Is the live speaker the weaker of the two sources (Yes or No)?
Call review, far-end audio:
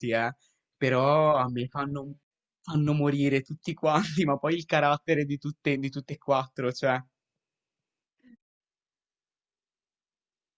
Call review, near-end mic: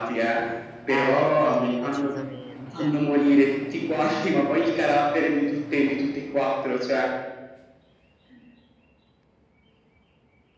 Yes